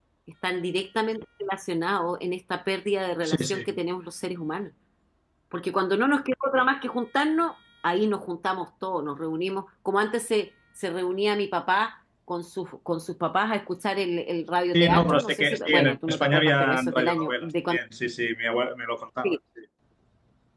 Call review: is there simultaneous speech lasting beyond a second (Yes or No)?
Yes